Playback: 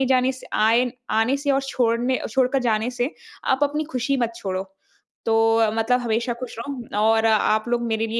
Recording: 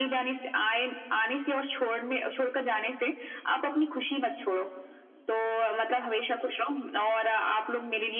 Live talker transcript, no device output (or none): none